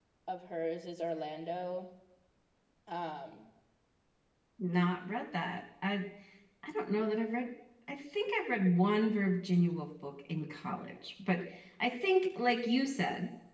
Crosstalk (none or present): none